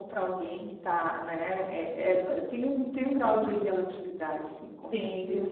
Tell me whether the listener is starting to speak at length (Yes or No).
Yes